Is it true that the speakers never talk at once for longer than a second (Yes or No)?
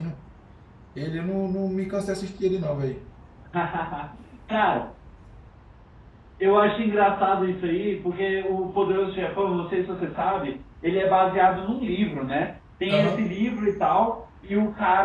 Yes